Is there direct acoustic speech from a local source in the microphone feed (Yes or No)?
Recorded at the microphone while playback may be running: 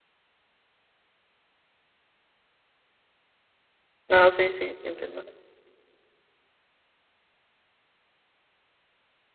Yes